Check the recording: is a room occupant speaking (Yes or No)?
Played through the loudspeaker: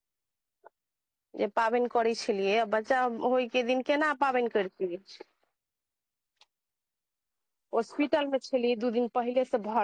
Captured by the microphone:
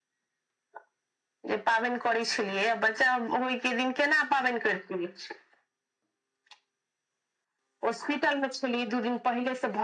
No